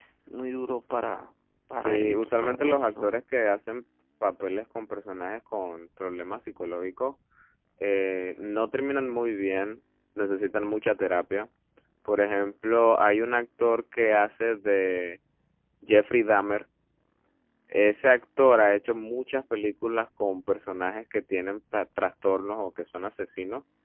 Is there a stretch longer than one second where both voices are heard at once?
Yes, from 1.8 s

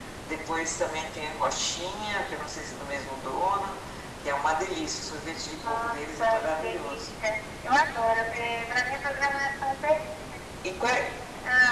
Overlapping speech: Yes, from 5.6 s

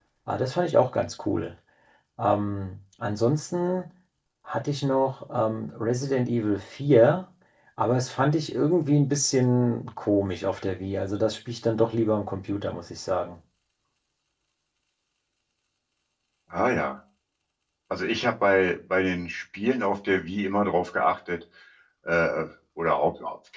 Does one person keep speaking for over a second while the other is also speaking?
No

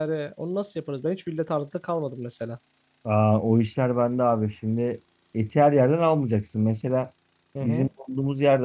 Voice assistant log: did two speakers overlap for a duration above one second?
No

